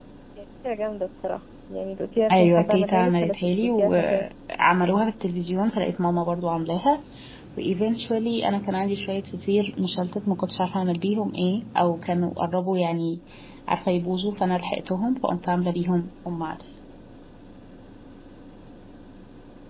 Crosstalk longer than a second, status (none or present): present